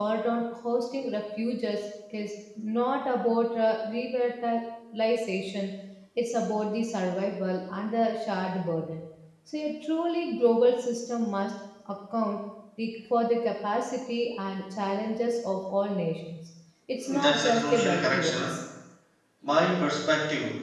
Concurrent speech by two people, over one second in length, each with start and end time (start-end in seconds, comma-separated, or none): 17.1-18.6